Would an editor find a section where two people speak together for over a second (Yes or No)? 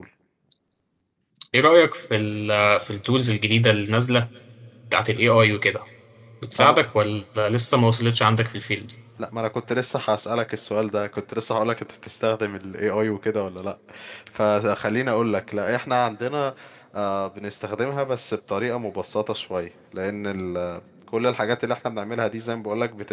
No